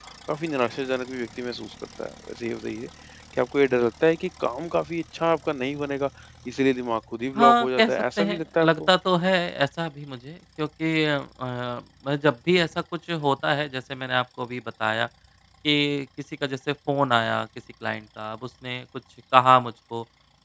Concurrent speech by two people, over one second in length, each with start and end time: 7.4-8.9

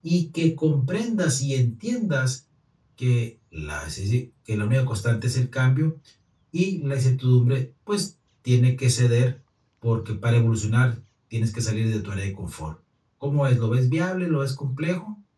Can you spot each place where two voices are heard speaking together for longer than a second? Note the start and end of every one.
none

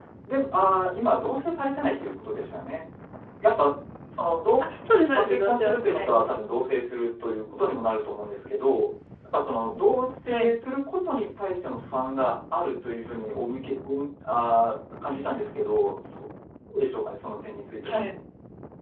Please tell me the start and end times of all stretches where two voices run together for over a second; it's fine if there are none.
5.1-6.4

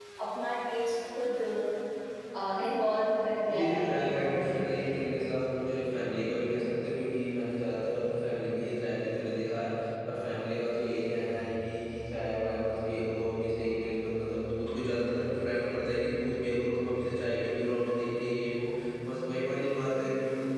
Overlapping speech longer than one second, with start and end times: 3.5-5.1

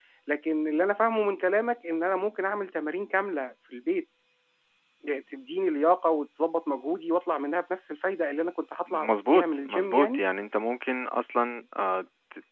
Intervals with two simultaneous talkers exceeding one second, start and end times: 8.9-10.2

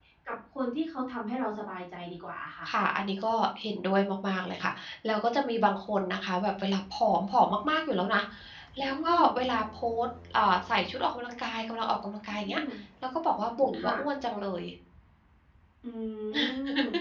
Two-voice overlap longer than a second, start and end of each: none

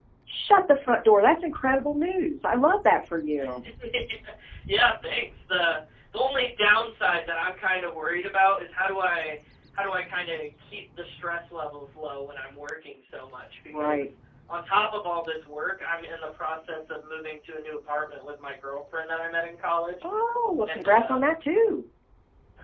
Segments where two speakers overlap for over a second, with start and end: none

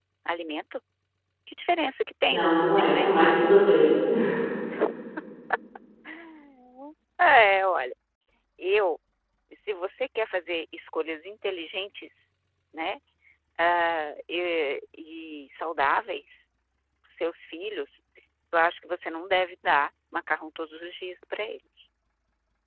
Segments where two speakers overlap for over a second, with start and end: 2.3-3.5

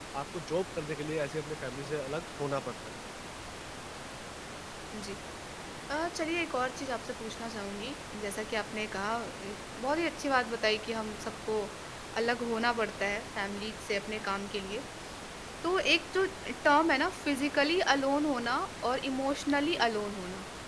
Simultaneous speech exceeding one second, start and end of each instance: none

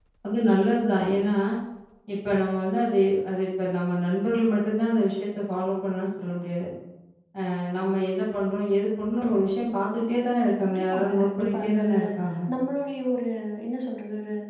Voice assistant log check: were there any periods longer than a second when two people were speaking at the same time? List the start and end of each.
10.6-11.9

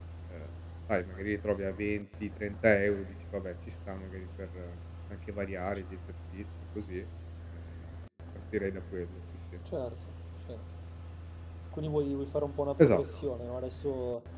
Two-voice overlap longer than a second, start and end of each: none

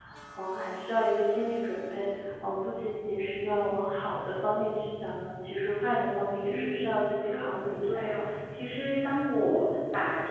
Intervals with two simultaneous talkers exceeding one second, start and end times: 6.5-8.1

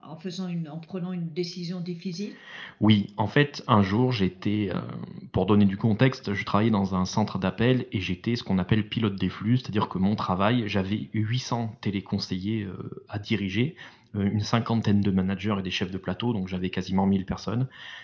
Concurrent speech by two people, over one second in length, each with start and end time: none

